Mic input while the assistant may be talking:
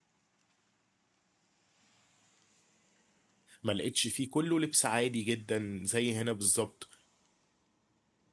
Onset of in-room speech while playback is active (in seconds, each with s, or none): 3.6 s